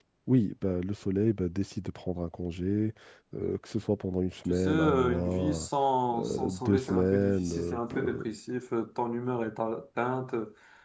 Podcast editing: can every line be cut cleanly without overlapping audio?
No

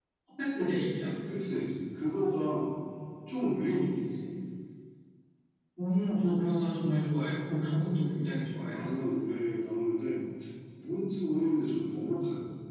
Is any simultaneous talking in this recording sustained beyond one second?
No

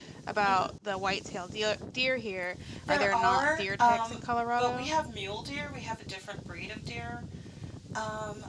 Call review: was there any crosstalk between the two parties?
Yes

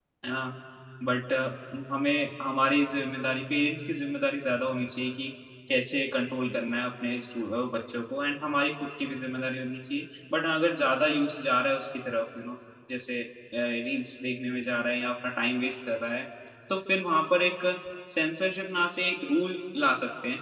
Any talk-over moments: No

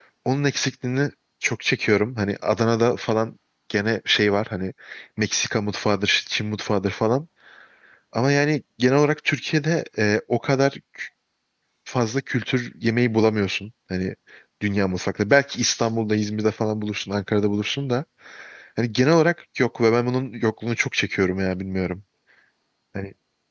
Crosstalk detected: No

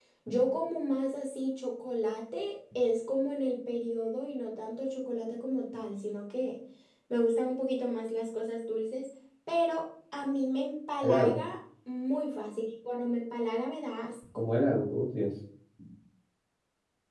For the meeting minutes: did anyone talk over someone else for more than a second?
No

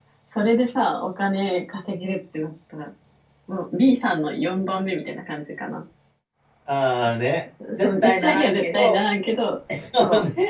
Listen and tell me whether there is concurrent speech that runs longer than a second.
Yes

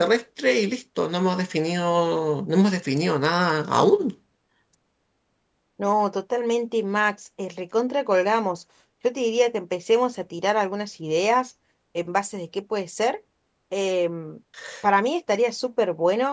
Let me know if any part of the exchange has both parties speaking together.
No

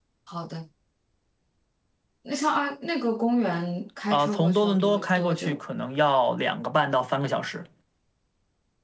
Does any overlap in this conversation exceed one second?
Yes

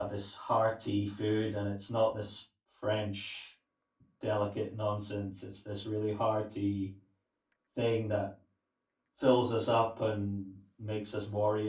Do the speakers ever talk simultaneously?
No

